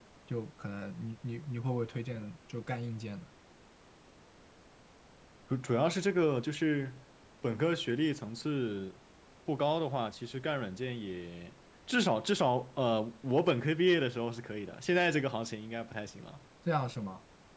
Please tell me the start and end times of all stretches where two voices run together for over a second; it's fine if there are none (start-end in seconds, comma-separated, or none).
none